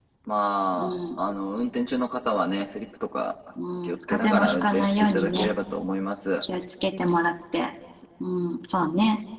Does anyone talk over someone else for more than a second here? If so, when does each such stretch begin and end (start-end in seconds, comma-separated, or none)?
3.8-5.5